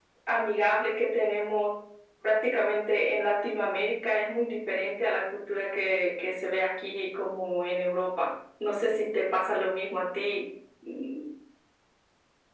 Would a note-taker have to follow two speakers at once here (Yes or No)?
No